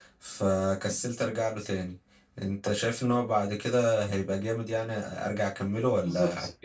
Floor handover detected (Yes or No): Yes